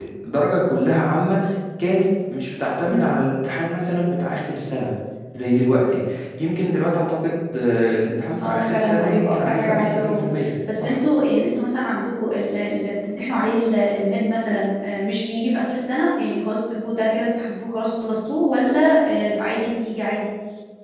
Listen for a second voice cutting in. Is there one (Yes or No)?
Yes